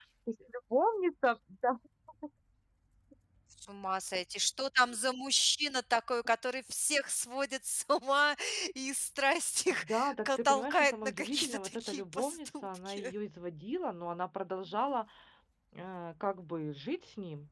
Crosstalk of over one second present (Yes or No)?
Yes